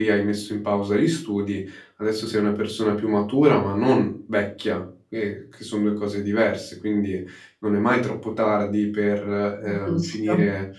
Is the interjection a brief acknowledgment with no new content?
Yes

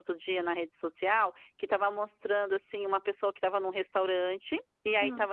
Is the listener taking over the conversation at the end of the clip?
No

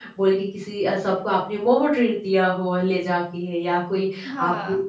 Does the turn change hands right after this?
No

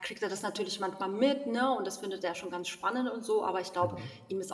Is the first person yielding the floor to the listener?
No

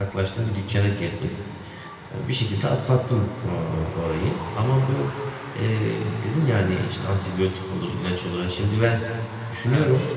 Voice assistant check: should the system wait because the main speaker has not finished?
Yes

